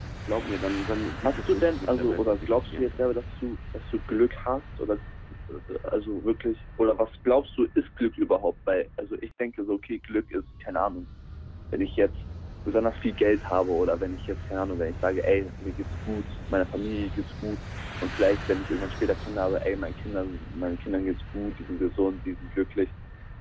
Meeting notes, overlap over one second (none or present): present